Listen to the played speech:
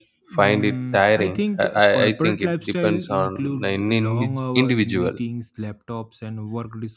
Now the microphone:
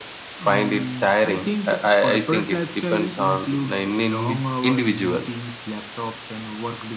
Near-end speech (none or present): none